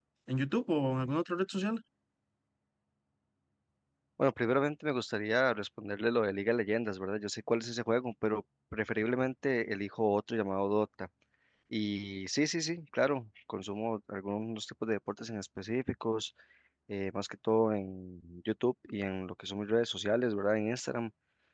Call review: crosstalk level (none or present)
none